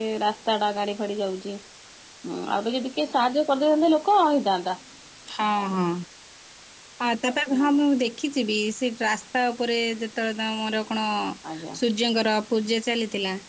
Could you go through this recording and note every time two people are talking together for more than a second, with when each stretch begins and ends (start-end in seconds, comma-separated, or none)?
none